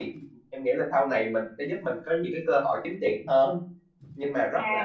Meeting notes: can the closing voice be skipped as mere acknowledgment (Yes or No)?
No